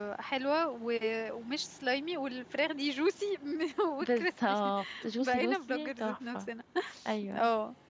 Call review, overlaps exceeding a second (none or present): present